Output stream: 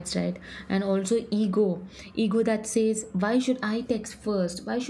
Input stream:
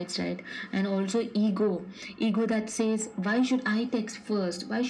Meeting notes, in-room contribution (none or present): none